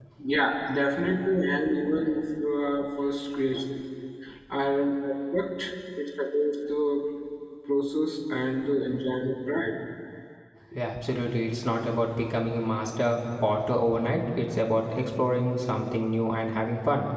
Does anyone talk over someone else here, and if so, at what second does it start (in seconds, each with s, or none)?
none